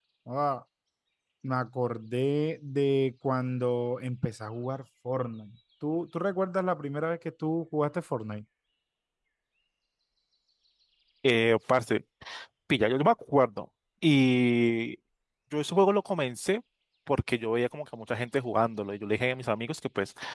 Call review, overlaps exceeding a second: none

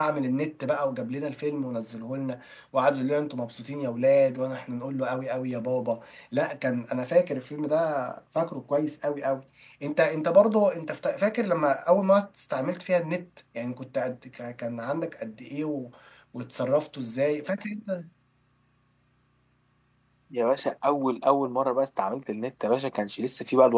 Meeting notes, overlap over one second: none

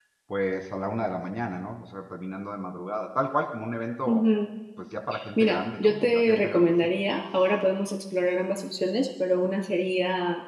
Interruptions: present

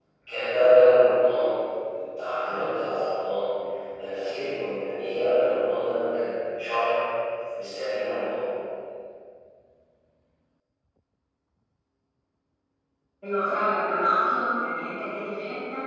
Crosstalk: none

